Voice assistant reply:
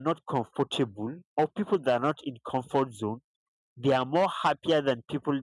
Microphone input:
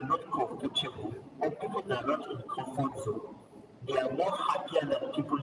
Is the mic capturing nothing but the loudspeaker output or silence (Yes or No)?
Yes